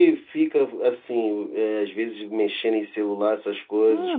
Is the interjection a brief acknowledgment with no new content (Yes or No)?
No